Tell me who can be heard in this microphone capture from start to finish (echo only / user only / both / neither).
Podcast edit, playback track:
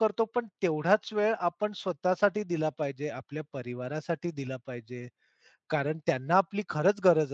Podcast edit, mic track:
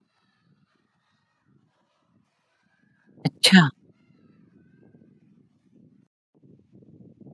user only